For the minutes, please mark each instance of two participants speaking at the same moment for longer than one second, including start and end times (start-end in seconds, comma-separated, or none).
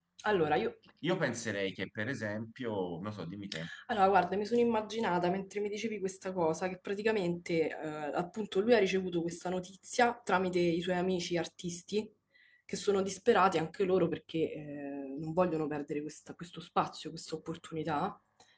none